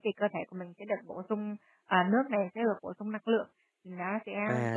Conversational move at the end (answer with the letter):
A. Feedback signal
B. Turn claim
B